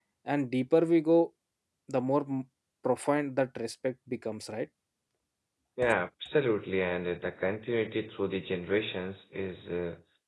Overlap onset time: none

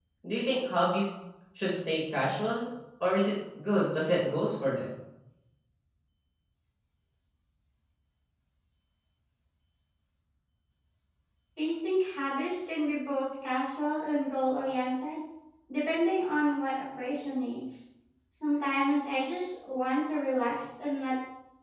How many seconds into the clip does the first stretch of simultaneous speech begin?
none

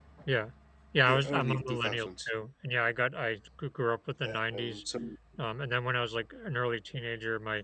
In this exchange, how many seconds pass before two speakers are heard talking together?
1.0 s

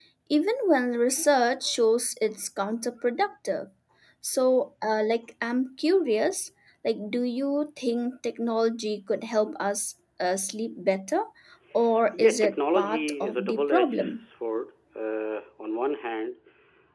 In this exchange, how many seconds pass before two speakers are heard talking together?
12.1 s

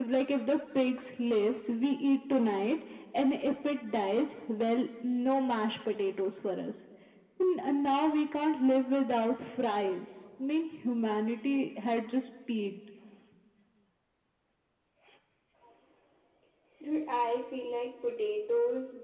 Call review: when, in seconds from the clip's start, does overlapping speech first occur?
none

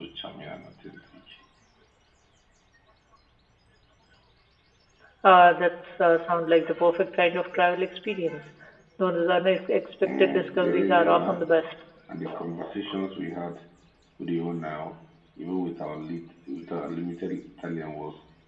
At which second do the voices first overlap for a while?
10.0 s

